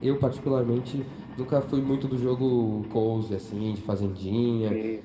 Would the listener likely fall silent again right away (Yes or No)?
Yes